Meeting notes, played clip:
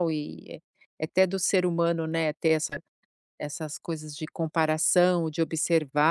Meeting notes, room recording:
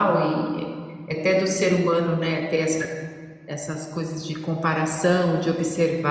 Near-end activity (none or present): none